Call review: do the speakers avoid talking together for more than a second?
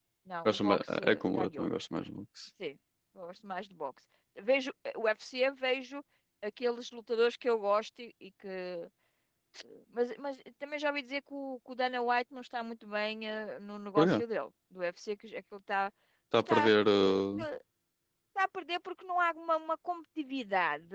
No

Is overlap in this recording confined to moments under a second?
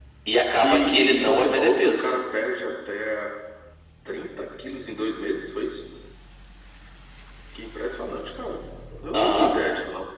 No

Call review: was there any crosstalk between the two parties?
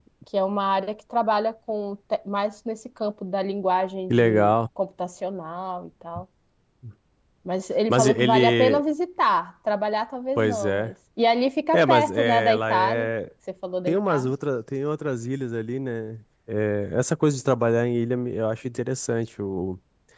Yes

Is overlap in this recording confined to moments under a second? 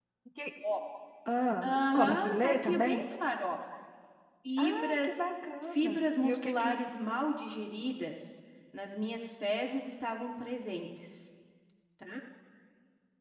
No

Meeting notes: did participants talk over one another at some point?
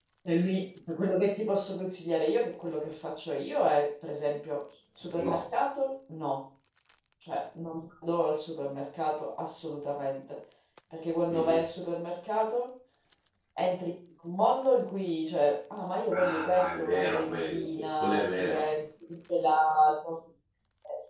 Yes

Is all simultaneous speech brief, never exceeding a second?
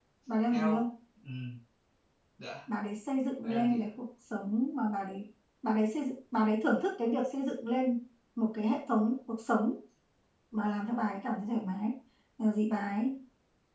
Yes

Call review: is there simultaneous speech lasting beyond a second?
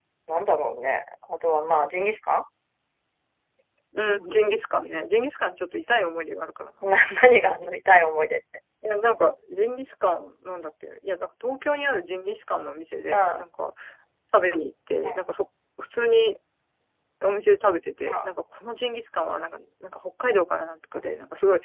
No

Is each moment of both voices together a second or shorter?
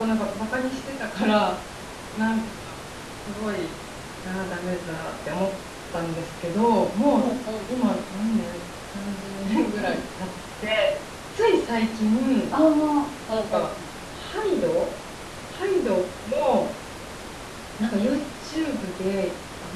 Yes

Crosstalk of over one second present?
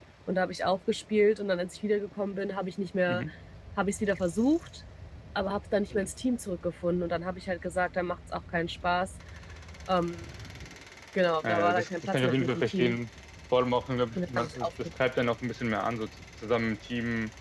Yes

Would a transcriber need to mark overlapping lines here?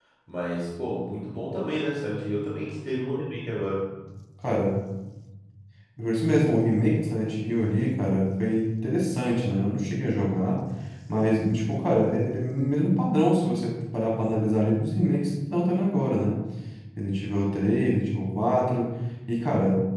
No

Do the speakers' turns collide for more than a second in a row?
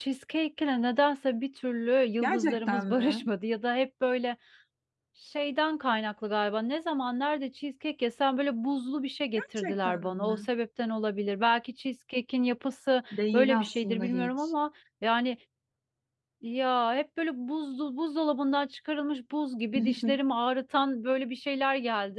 Yes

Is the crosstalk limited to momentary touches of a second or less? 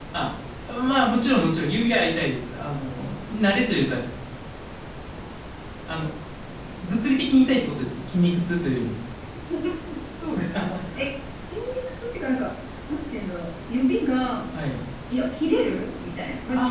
Yes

